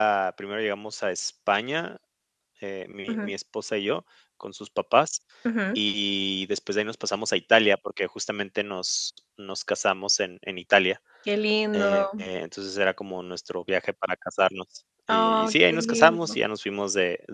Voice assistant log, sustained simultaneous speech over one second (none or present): present